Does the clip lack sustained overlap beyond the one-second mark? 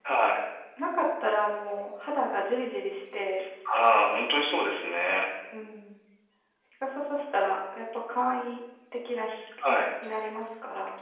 Yes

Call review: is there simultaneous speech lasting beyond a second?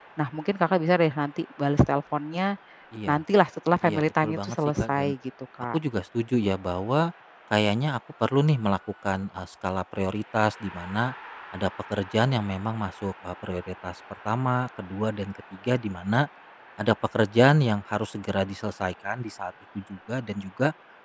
Yes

